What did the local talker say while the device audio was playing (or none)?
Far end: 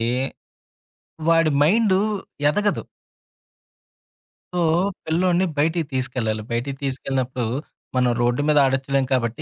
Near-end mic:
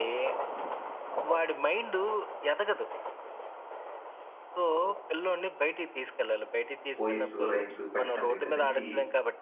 పోయిమ్సు, రైమ్సు పెట్టడం దగ్గర నుంచి